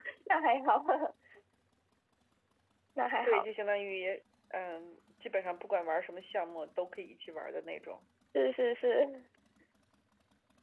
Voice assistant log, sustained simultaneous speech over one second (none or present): none